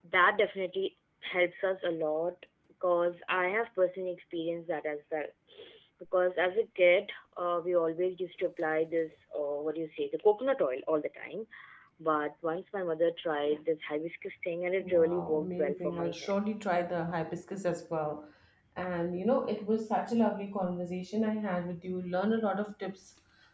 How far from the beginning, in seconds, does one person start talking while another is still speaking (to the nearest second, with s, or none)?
15 s